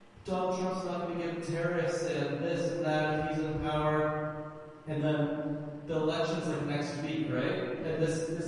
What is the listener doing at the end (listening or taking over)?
listening